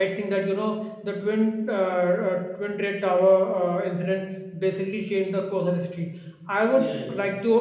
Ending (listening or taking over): listening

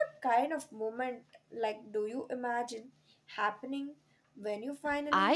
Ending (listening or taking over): taking over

